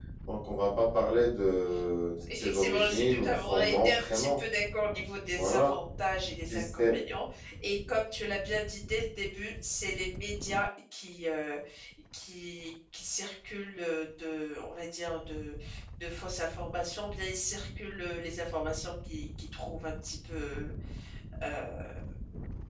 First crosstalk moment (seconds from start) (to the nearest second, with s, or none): 2 s